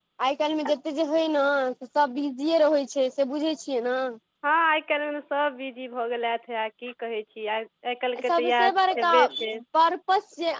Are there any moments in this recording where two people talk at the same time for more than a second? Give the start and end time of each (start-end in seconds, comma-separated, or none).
8.3-9.5